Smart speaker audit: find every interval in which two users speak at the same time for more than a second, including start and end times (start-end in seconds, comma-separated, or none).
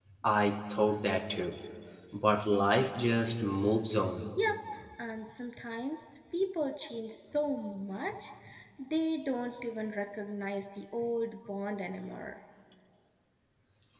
none